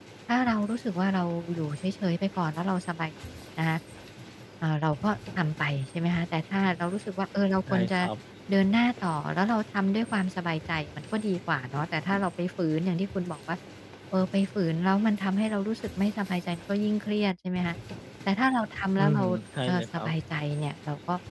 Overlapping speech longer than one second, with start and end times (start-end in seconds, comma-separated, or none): none